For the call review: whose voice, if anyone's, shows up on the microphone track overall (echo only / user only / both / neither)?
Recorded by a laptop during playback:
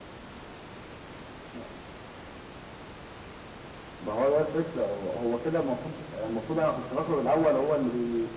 echo only